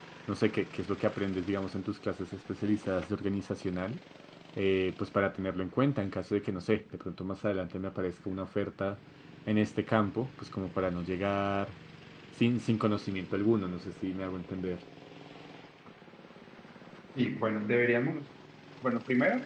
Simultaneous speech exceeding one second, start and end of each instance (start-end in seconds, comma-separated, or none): none